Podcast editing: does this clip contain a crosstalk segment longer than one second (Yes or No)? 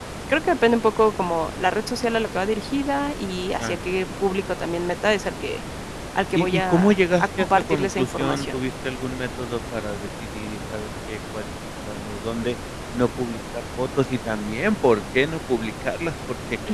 Yes